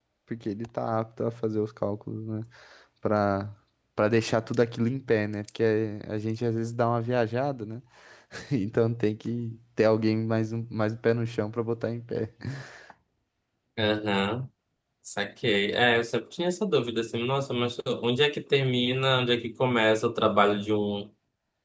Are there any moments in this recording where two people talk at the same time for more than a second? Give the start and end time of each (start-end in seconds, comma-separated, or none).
none